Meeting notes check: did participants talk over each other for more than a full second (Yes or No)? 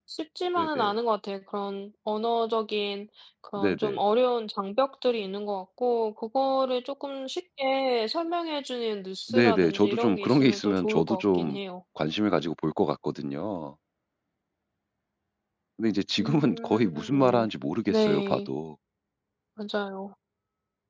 Yes